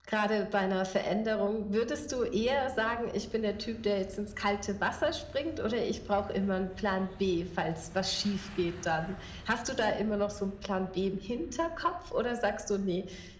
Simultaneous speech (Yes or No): No